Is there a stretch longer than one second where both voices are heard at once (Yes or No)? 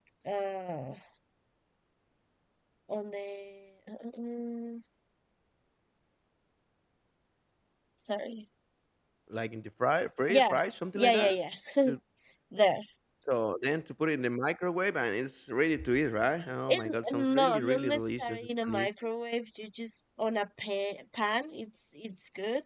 Yes